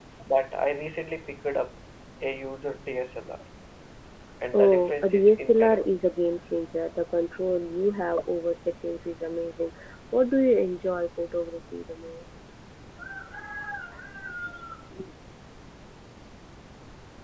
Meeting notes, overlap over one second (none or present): present